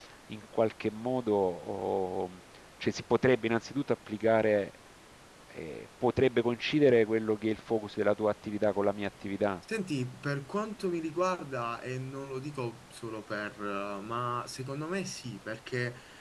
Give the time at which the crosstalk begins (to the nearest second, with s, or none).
none